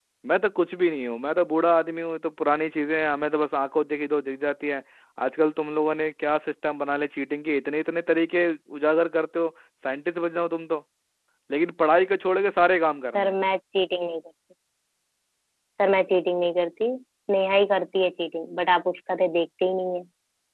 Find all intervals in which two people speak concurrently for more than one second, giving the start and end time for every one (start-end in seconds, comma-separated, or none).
none